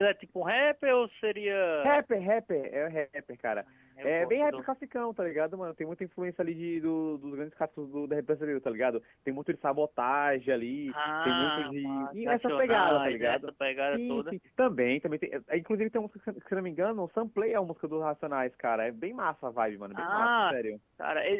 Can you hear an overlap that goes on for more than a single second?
Yes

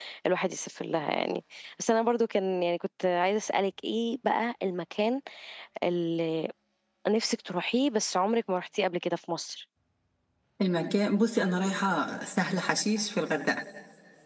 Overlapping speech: No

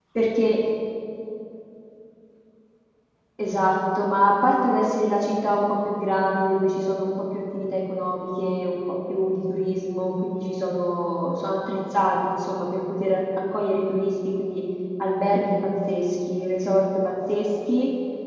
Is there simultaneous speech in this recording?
No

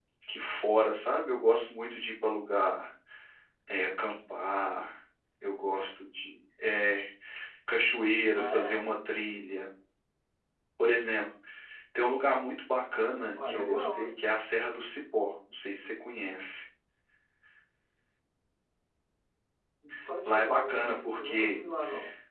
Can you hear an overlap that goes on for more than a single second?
Yes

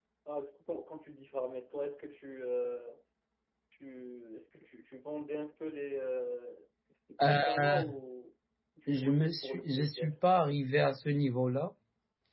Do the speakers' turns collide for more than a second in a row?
Yes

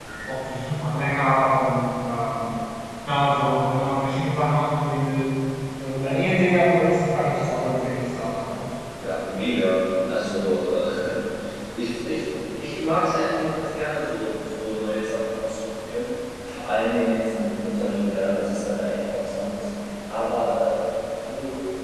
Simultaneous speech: No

